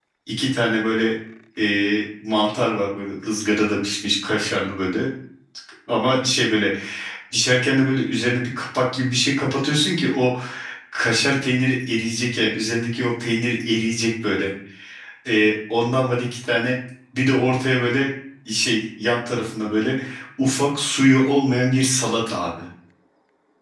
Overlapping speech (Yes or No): No